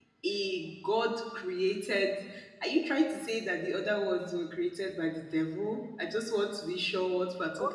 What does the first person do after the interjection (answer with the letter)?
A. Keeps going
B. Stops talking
B